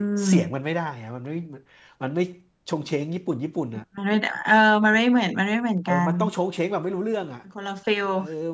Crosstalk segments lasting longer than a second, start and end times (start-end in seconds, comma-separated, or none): none